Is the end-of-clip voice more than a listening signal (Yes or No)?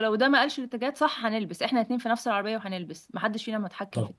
Yes